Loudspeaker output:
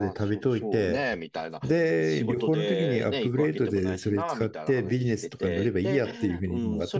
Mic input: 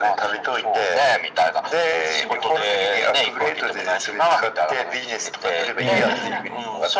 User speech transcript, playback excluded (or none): ええ、